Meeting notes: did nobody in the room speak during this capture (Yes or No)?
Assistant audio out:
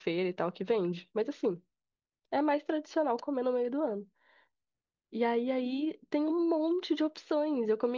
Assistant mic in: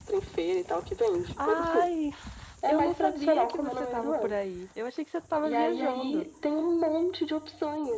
No